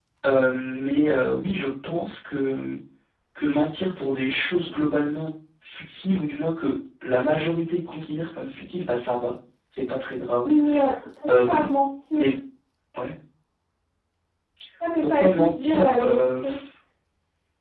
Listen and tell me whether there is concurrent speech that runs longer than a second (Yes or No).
Yes